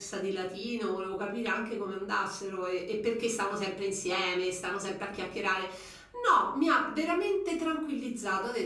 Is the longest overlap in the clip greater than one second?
No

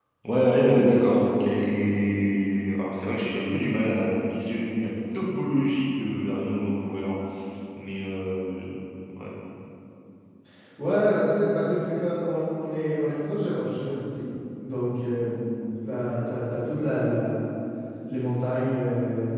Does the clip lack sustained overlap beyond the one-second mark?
Yes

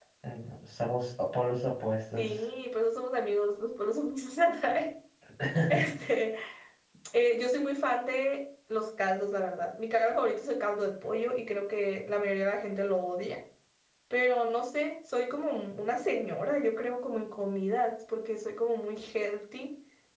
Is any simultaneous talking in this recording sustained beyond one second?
No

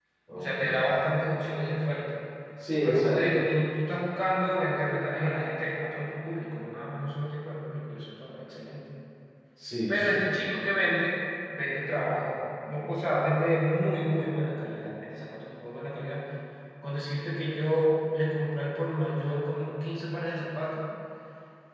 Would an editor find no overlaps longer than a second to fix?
Yes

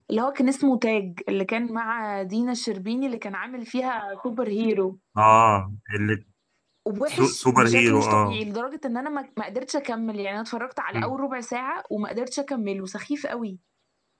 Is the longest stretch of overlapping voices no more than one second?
No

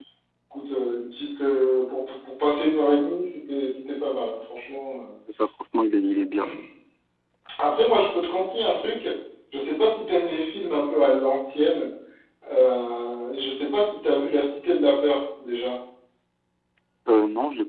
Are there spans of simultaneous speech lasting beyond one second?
No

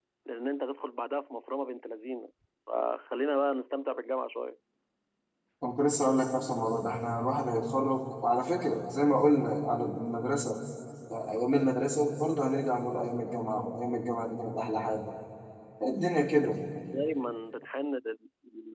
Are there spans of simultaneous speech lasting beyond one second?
No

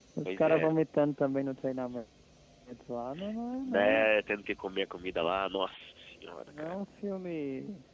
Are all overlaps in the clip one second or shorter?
Yes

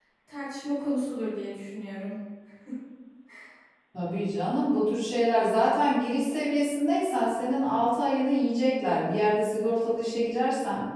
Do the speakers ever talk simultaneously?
No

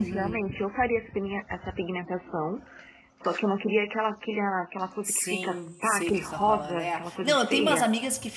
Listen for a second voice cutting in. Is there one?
Yes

